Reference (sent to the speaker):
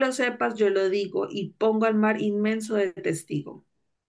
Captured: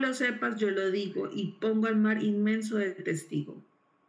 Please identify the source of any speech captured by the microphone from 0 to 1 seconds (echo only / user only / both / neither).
echo only